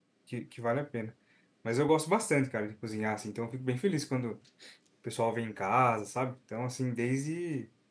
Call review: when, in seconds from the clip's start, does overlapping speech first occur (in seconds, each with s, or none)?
none